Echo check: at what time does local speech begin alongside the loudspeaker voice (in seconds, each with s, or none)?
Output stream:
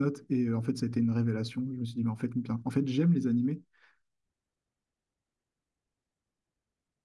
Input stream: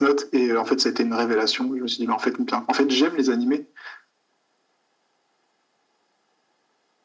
none